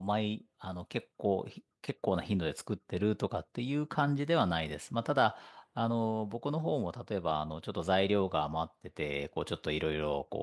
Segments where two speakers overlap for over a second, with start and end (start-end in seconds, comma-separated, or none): none